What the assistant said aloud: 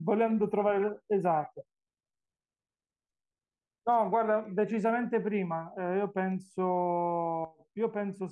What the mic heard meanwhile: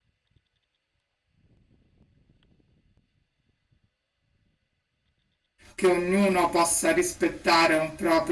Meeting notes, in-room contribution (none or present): present